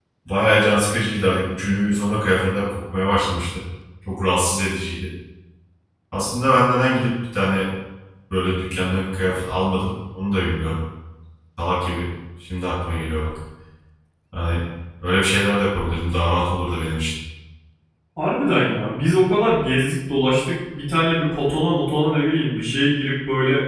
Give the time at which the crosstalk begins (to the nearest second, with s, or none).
none